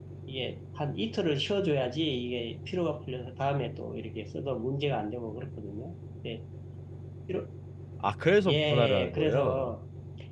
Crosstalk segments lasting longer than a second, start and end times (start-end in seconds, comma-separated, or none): 8.5-9.7